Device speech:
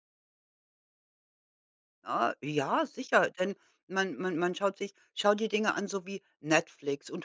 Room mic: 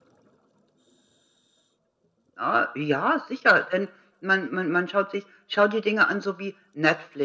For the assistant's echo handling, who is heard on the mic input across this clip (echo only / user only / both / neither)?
echo only